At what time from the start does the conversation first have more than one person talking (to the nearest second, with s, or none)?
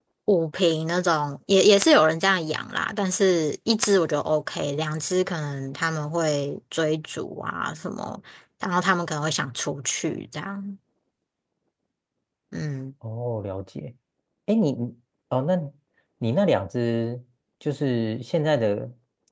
none